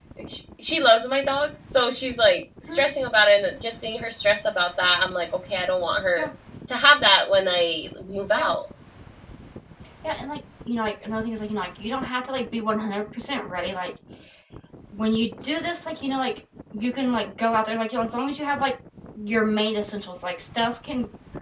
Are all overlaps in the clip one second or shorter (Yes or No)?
Yes